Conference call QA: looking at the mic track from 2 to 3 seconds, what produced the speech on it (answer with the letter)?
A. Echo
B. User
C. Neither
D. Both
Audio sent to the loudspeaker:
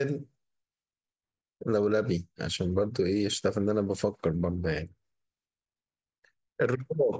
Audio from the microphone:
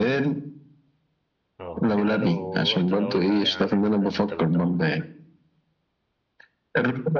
D